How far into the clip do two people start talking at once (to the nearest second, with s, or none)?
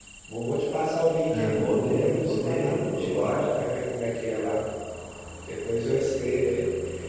1 s